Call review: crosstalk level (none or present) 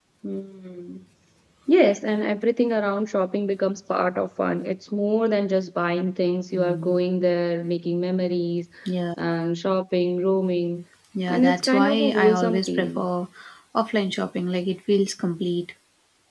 present